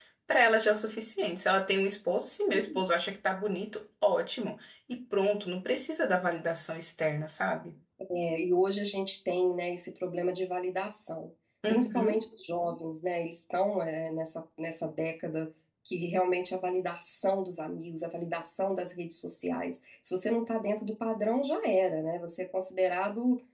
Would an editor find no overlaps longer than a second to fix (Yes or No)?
Yes